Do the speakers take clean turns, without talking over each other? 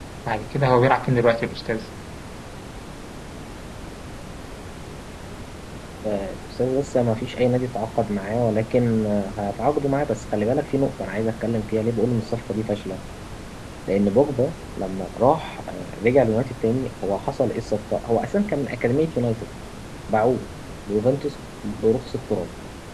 Yes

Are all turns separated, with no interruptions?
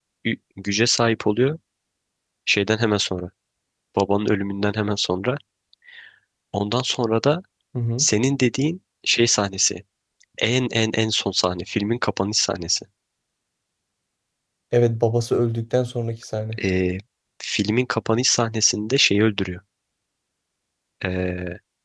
Yes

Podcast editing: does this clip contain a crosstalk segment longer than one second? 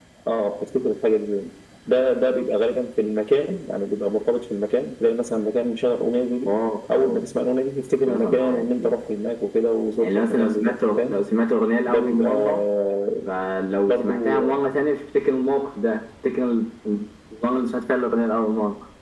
Yes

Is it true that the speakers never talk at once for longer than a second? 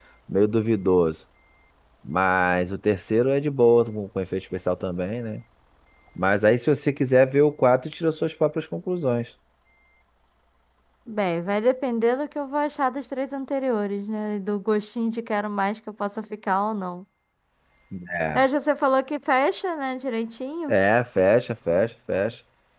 Yes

